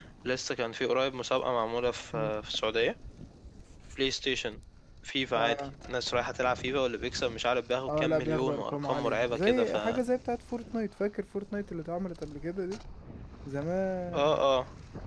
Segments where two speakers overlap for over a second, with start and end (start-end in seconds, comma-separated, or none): 7.9-10.0